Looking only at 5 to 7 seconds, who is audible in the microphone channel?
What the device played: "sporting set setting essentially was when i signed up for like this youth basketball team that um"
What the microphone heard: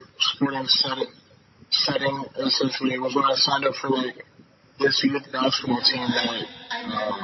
both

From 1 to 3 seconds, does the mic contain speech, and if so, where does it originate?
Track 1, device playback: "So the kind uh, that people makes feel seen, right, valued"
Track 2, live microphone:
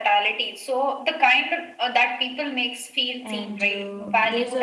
echo only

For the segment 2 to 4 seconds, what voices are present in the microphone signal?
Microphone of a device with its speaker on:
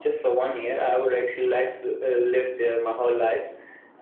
echo only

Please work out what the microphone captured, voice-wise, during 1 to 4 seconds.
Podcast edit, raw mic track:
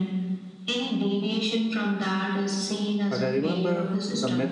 both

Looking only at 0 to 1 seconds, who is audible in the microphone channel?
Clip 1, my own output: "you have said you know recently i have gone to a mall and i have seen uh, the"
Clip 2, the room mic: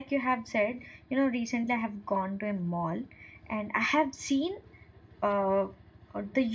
echo only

